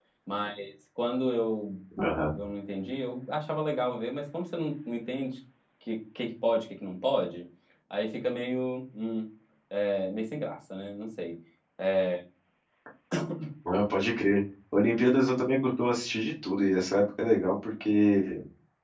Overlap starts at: none

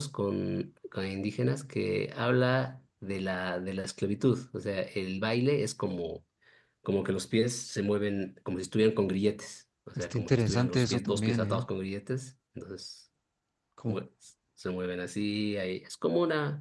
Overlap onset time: 10 s

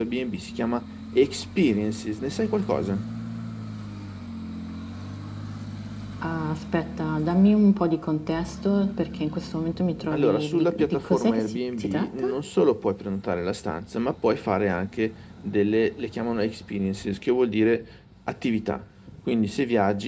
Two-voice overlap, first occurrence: 10 s

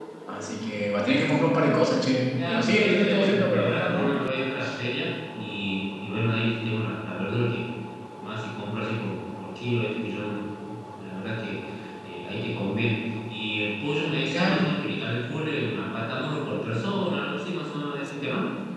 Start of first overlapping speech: 2 s

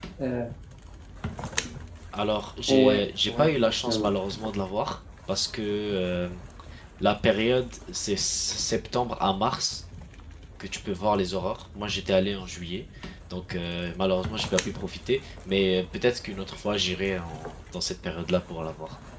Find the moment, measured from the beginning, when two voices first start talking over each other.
3 s

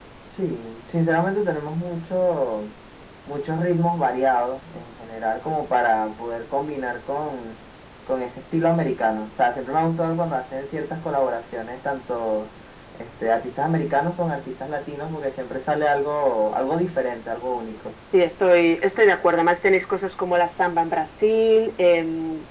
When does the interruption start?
none

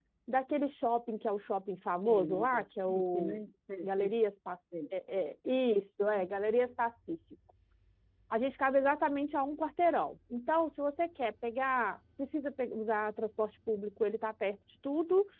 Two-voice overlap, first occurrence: 2 s

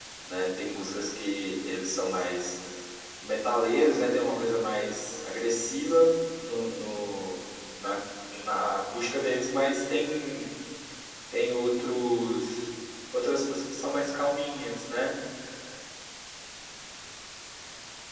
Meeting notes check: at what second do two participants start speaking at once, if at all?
none

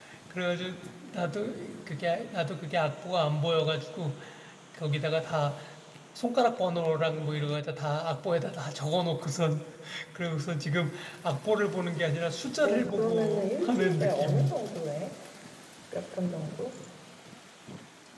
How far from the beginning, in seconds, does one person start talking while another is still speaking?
13 s

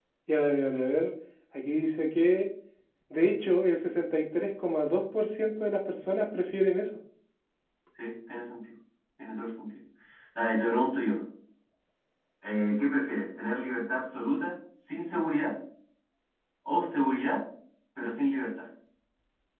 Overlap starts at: none

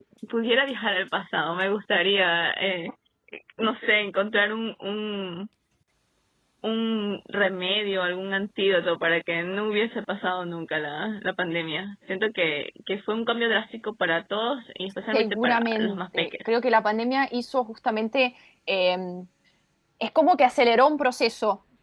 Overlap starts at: 15 s

